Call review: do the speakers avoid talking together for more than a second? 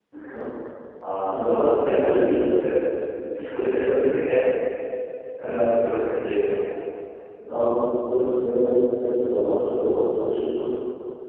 No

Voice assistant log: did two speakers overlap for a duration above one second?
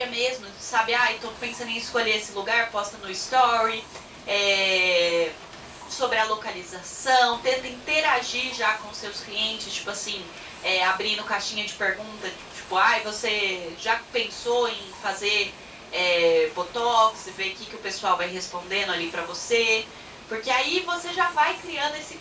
No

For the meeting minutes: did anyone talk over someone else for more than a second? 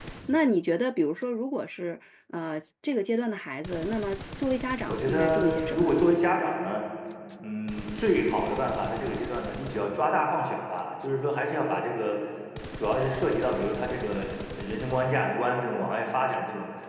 Yes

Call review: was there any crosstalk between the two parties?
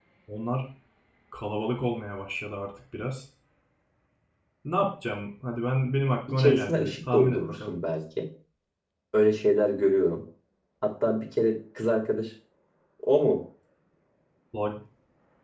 Yes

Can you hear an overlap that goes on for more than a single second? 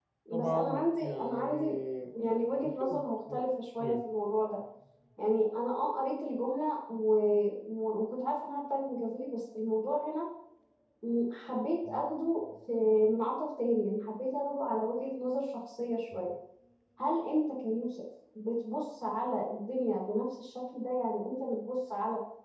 Yes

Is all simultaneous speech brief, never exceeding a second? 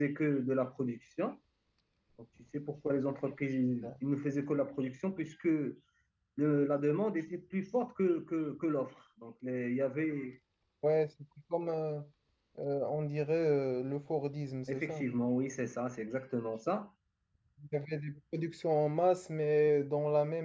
Yes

